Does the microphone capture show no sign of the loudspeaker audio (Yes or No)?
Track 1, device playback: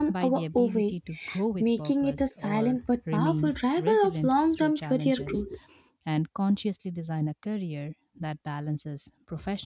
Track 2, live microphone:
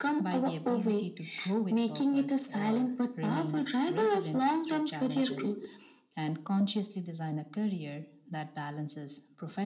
No